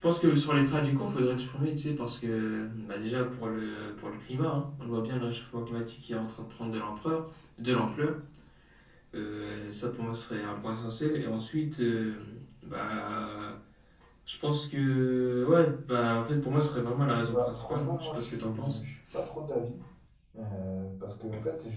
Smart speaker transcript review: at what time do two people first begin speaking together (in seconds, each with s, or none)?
17.2 s